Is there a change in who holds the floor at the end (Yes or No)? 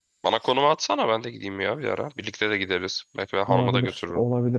Yes